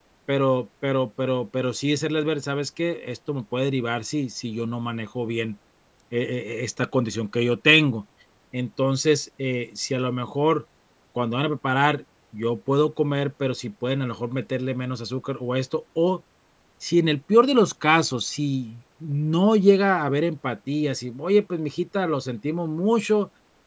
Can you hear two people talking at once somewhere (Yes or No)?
No